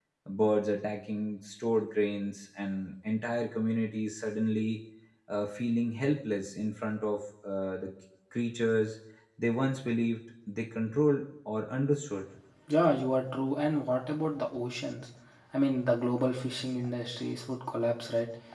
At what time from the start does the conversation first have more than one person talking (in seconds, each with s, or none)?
none